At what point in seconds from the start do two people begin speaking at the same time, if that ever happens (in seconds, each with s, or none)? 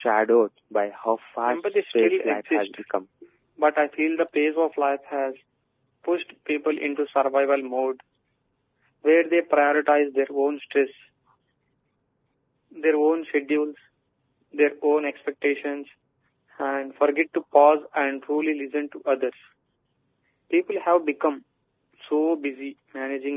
1.4 s